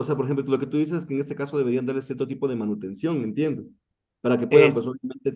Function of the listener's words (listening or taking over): listening